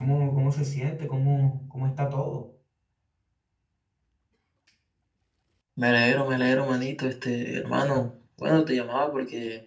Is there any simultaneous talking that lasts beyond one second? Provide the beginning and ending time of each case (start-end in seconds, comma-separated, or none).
none